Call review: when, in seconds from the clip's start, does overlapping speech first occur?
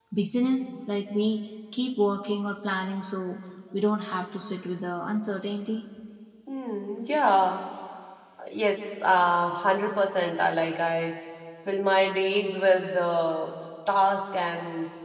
none

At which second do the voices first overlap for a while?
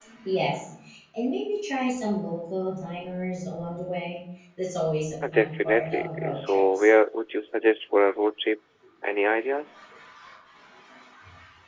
5.2 s

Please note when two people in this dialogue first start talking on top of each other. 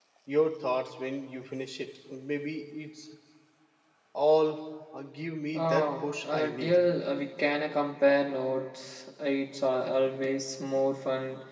5.5 s

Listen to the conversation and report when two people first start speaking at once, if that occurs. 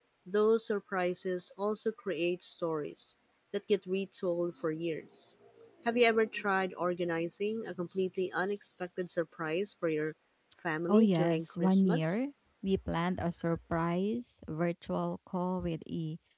10.9 s

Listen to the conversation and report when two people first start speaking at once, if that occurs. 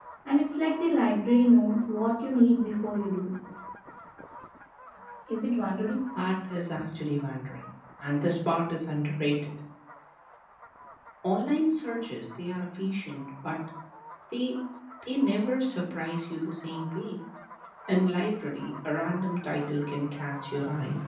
none

